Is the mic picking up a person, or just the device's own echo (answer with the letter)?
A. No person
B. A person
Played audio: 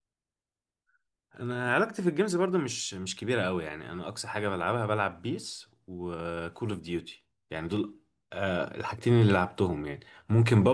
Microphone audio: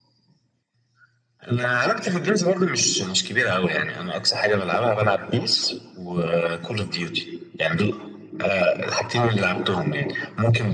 A